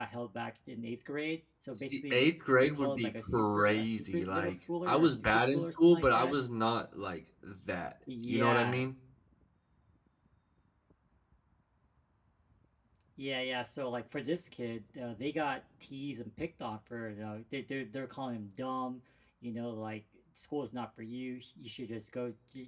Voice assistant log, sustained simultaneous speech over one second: present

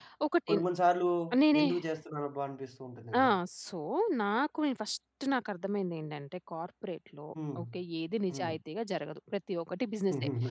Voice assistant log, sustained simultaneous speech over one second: none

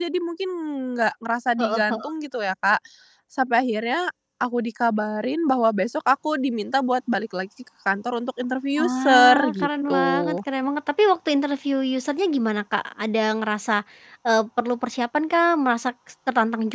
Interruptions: present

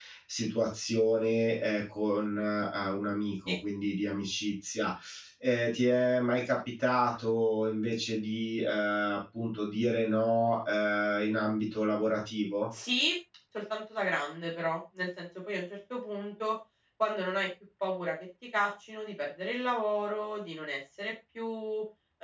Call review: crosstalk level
none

